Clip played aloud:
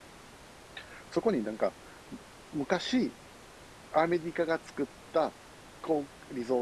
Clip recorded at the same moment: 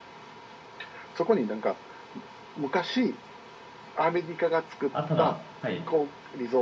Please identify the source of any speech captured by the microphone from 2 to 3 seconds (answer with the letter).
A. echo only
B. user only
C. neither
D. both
A